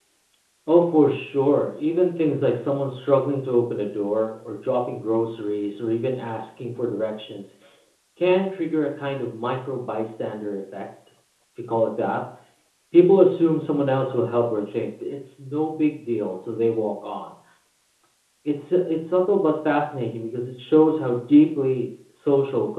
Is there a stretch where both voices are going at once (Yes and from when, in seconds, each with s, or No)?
No